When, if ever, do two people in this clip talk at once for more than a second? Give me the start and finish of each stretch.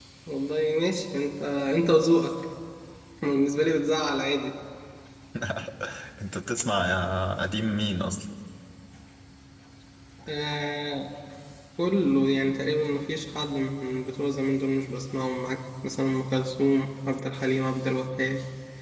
none

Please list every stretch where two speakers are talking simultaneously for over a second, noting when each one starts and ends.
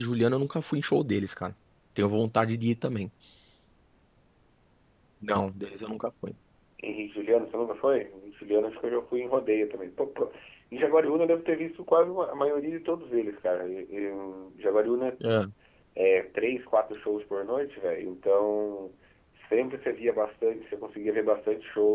none

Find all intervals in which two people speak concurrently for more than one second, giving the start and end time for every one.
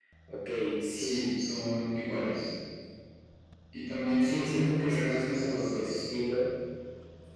4.2-6.0

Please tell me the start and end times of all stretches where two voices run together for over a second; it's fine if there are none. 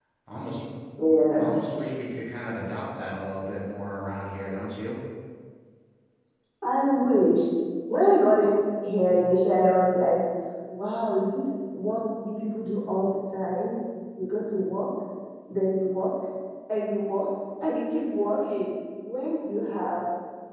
none

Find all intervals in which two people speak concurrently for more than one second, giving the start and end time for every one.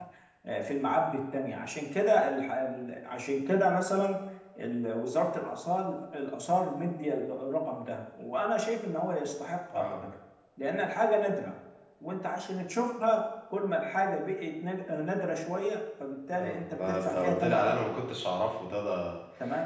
16.4-18.0

